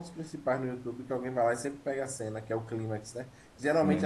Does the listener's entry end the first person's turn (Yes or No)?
No